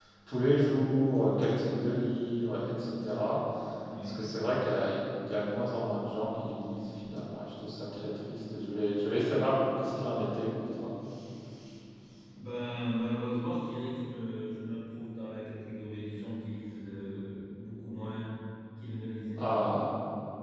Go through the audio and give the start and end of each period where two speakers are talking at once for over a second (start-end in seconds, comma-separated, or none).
none